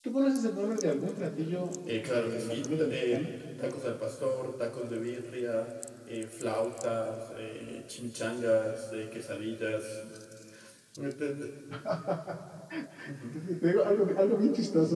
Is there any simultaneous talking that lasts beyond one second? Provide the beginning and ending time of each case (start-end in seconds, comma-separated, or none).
2.0-3.3